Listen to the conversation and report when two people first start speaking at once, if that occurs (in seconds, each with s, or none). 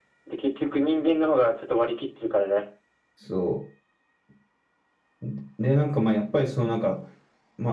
none